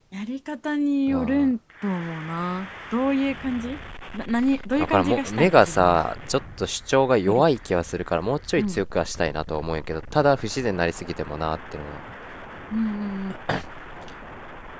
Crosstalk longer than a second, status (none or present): present